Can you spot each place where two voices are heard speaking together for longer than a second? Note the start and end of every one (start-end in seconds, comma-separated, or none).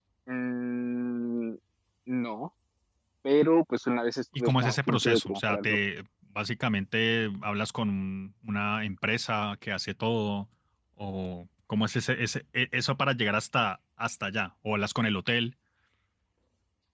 4.4-5.8